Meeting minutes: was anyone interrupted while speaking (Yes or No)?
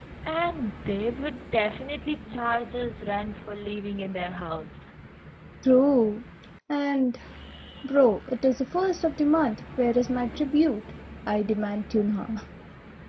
No